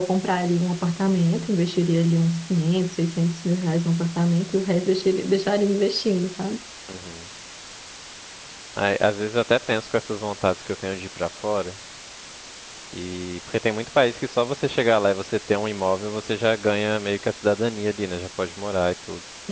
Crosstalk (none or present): none